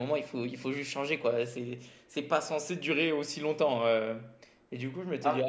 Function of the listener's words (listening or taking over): listening